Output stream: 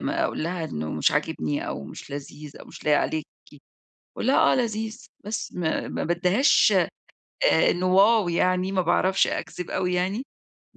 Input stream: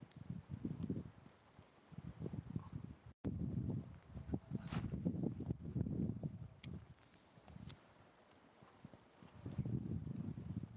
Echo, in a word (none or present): none